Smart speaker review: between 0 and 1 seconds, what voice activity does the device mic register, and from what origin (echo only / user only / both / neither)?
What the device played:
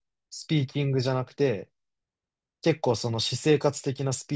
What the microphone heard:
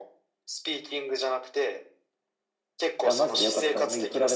echo only